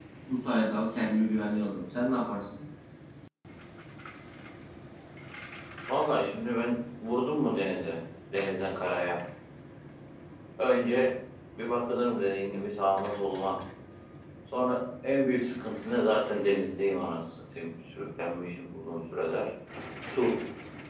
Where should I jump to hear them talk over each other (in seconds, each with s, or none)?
none